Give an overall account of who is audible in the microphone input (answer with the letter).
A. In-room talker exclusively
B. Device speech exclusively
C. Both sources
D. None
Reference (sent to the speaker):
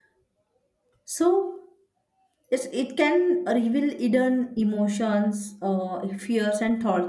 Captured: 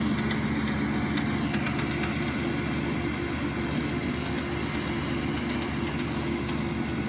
D